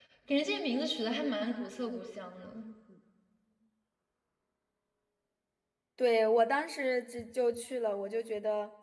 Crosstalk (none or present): none